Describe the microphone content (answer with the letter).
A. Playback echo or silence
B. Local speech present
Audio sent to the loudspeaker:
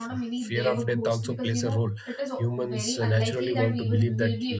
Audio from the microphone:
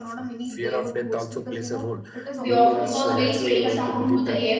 B